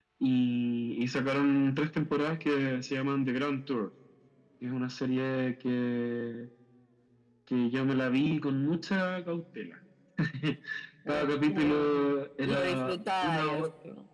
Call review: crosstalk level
present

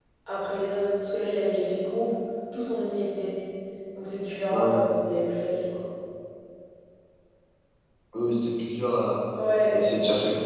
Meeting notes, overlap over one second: none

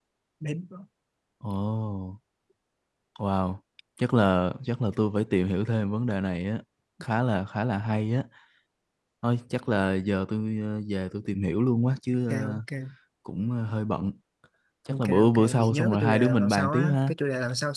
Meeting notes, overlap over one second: present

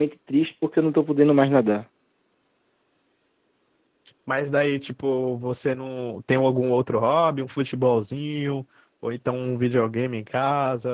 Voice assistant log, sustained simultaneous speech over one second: none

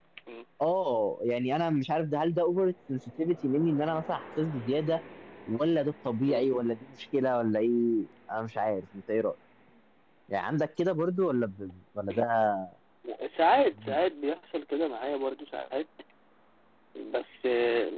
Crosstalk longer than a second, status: none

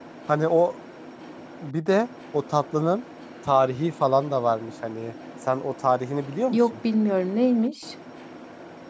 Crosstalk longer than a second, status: none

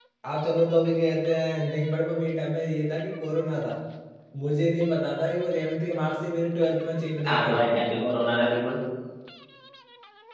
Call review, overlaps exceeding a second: none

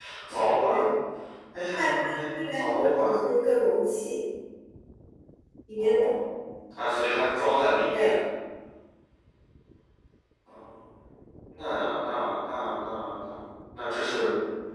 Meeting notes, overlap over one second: present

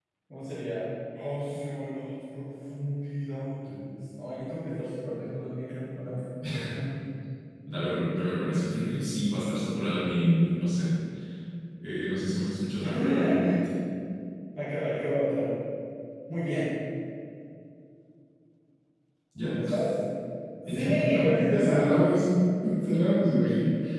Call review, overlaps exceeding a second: present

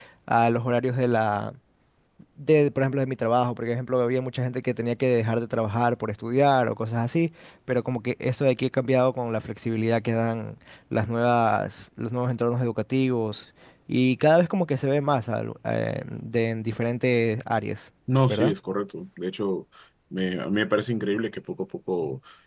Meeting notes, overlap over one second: none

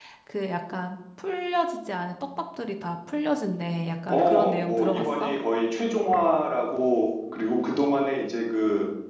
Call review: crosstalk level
present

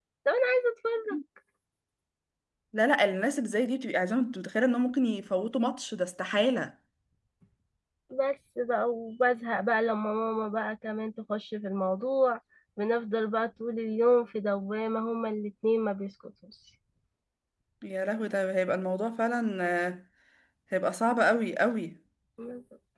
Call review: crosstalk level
none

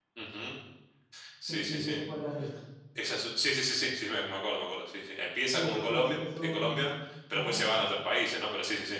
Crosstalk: present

